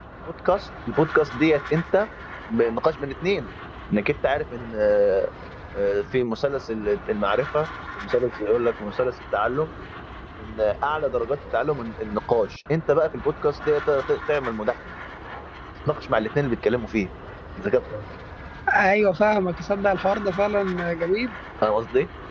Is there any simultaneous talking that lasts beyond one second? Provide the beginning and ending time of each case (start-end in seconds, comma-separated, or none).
none